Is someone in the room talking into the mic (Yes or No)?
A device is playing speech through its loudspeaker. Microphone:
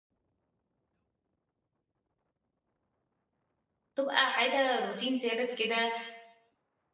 Yes